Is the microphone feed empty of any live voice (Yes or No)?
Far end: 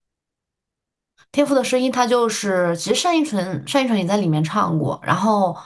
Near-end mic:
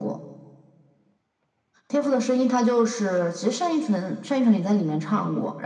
Yes